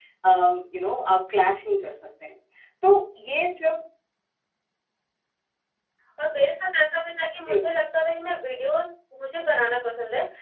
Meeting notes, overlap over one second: none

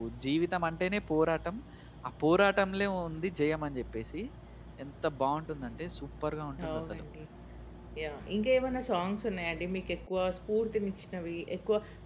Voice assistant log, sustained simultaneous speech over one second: none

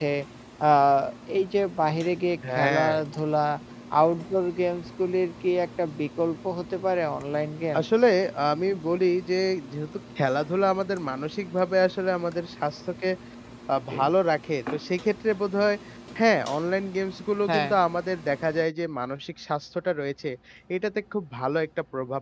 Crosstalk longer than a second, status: none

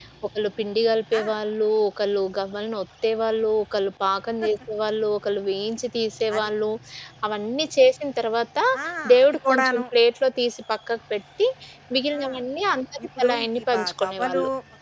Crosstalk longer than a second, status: present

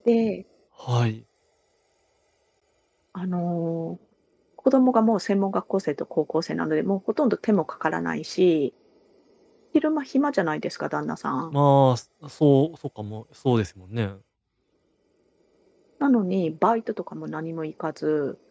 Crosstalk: none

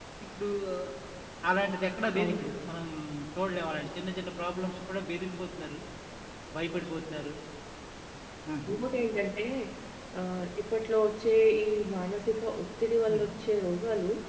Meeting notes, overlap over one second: none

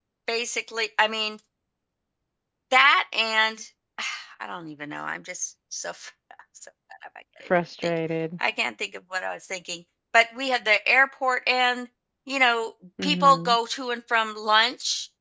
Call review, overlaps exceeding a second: none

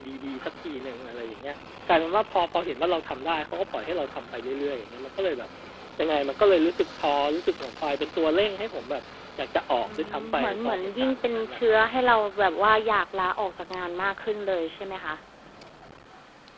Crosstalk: present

